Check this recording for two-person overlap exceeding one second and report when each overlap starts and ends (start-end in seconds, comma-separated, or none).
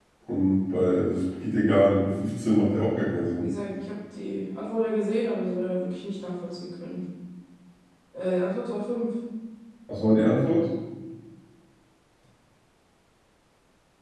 none